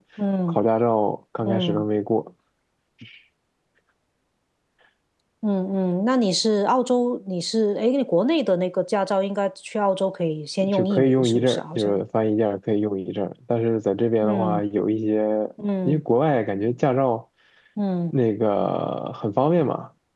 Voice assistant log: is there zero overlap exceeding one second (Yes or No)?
No